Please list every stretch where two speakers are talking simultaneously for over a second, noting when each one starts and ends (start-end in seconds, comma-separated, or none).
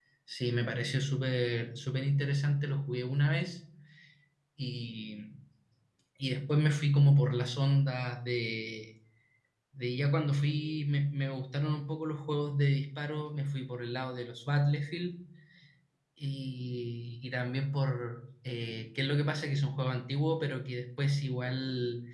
none